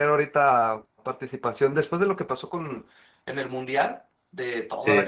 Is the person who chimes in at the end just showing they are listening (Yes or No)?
Yes